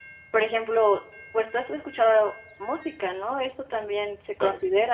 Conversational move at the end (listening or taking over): listening